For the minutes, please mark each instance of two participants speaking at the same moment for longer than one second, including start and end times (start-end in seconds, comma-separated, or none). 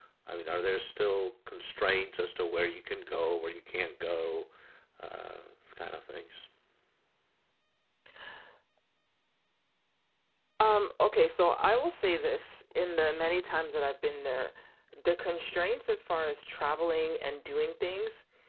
none